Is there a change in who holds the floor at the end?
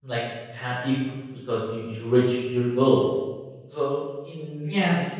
No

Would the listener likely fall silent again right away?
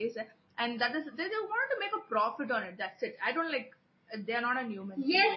No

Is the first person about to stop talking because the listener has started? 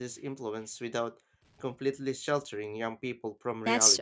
Yes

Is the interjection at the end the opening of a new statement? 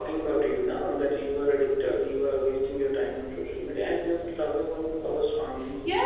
Yes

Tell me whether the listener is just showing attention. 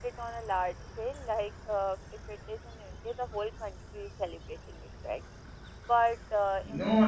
No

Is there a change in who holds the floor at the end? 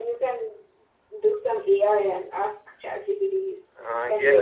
Yes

